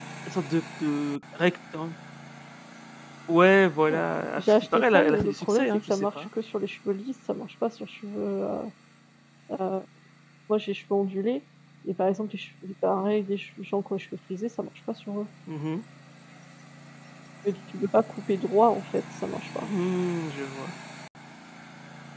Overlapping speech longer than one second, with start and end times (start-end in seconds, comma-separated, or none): 4.4-6.2